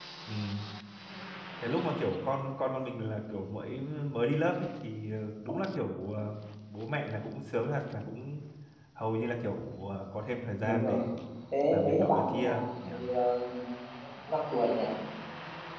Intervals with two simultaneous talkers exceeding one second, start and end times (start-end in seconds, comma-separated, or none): 11.7-12.9